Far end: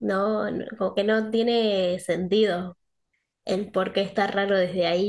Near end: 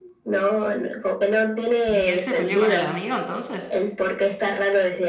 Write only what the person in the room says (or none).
¿Y él se peleó con el amigo entonces?